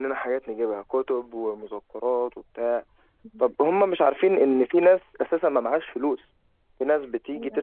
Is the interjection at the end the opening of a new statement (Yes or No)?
No